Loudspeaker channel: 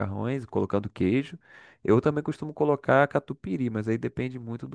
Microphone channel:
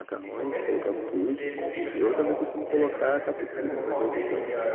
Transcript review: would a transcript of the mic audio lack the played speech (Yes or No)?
No